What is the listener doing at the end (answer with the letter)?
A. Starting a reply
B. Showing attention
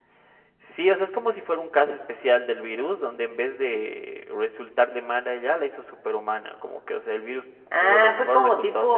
A